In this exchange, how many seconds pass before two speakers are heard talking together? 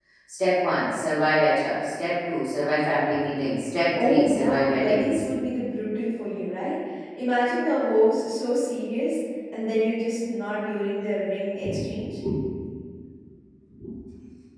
4.0 s

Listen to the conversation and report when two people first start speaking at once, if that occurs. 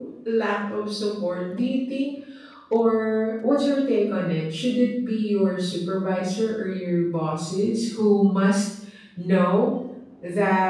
none

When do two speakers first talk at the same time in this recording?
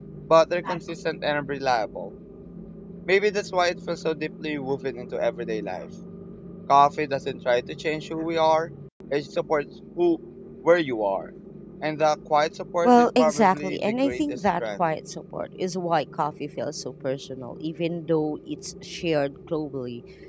12.8 s

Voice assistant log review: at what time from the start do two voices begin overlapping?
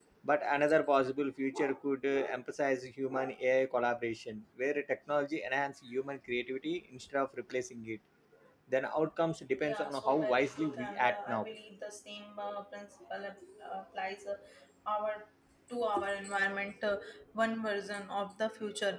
9.6 s

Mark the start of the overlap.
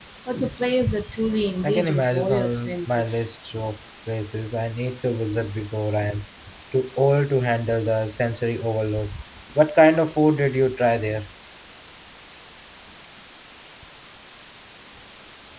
1.6 s

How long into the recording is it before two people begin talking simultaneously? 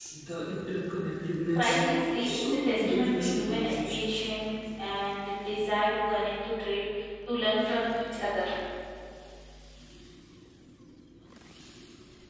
1.6 s

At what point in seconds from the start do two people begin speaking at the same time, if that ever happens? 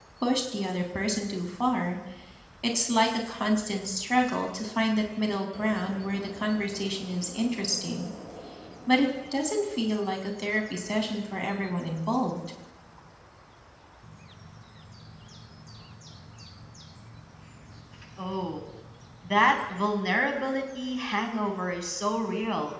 none

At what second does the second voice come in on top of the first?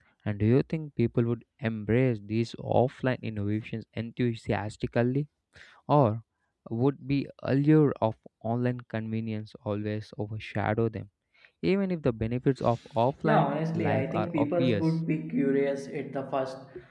13.2 s

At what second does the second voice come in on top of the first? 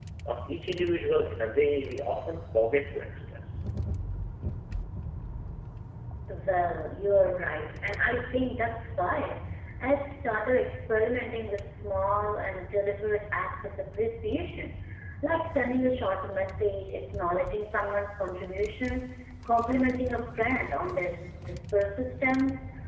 none

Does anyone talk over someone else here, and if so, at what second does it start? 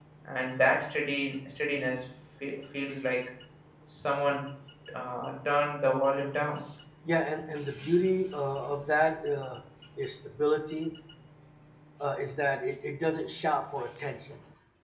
none

